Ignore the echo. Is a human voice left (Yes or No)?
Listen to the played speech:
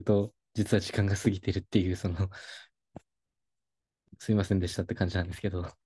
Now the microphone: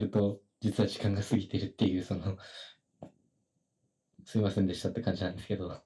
No